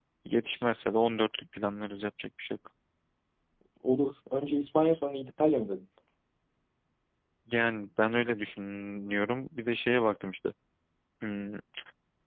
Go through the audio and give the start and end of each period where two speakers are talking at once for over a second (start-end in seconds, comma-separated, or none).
none